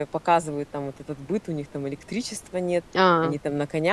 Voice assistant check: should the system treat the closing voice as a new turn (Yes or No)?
No